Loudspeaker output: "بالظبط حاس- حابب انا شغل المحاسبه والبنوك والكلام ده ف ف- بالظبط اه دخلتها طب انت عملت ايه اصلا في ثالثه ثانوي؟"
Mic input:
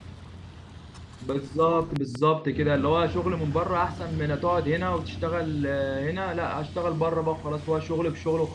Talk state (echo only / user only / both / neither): user only